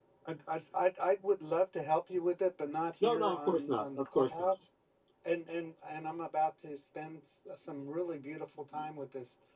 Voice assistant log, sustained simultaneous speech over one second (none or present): present